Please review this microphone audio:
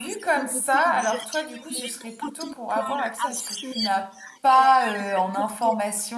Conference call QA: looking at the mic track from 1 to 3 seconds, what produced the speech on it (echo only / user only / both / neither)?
both